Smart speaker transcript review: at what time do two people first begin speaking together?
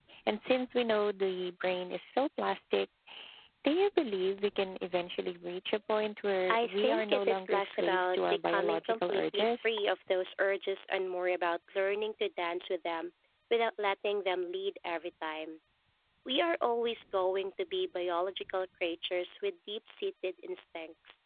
6.5 s

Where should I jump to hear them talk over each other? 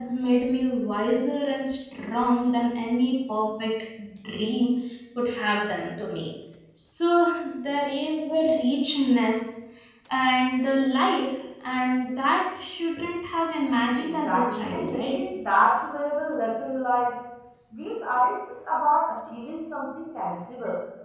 14.0 s

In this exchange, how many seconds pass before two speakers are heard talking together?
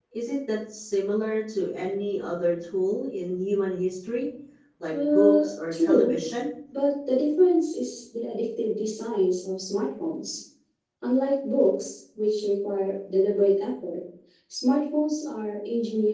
4.9 s

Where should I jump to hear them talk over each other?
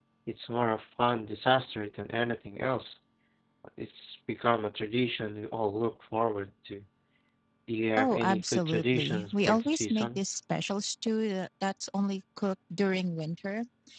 8.0 s

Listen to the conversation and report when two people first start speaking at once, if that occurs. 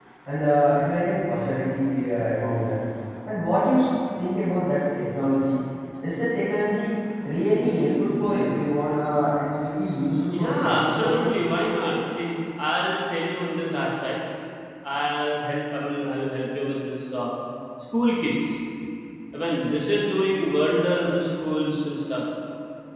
10.3 s

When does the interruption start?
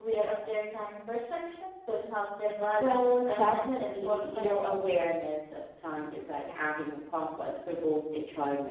2.7 s

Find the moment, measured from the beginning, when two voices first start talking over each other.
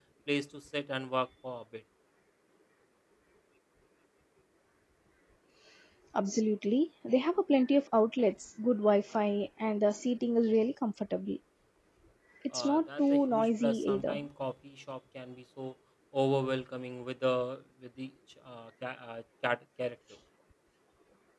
12.5 s

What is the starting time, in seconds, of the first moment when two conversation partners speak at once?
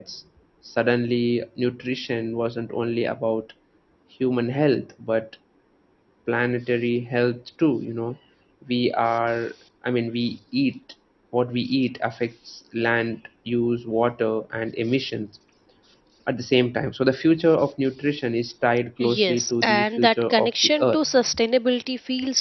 19.0 s

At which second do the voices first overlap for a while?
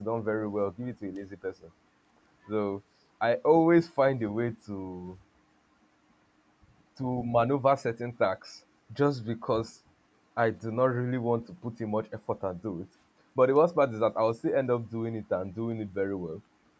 none

